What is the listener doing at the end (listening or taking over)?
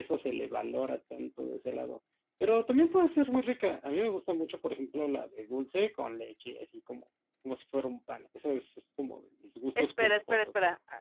taking over